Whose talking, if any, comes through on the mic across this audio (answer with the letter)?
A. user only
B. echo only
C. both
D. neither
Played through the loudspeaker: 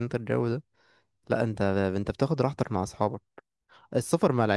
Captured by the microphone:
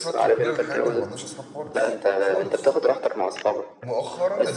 C